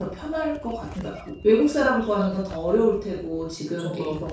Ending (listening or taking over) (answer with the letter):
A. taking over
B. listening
B